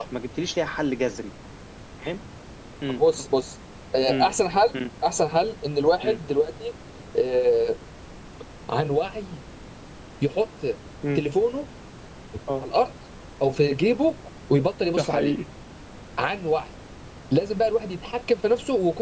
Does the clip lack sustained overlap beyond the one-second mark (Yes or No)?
Yes